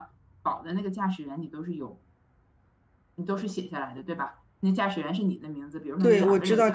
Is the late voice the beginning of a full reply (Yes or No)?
Yes